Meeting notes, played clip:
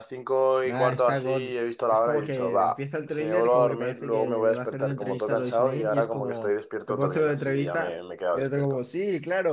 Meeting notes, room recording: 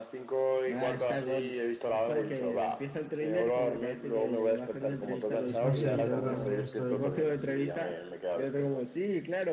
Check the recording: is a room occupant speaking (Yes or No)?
Yes